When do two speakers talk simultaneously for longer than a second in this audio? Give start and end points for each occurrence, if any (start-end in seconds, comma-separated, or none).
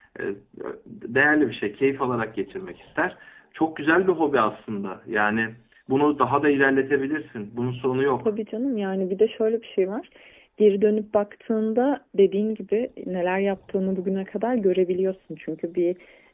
none